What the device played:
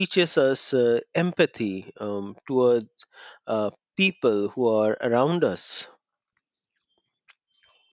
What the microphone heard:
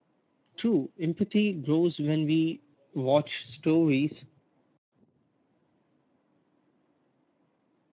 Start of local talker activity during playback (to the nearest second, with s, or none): 1 s